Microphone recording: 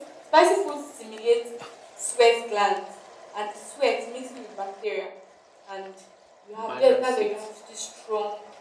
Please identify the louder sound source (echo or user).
echo